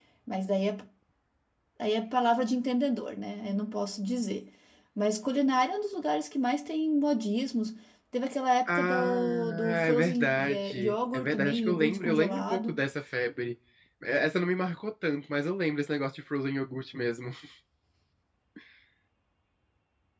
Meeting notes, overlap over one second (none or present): present